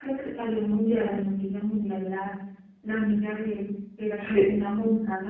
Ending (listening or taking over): listening